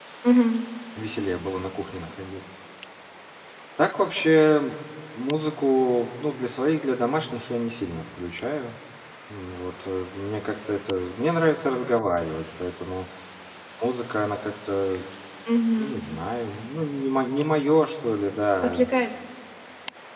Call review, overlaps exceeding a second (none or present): none